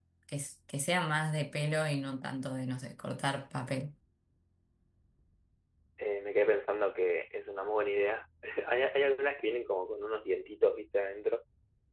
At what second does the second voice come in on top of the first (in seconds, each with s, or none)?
none